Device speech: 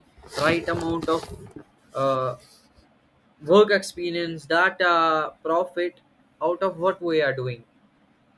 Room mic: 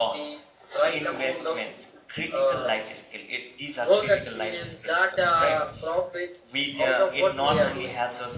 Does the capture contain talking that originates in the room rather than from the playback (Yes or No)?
Yes